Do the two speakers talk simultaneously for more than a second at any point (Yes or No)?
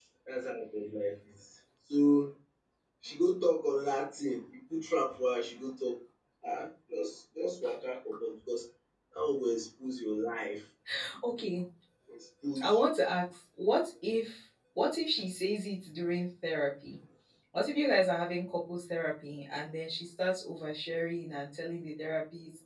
No